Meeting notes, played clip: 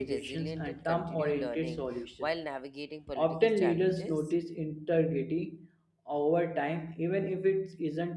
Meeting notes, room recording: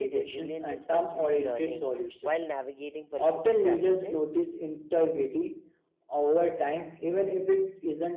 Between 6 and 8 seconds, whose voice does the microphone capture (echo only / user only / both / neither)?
echo only